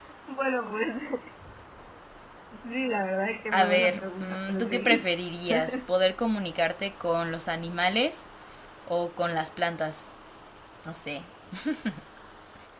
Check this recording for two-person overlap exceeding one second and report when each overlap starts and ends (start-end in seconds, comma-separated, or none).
3.5-5.0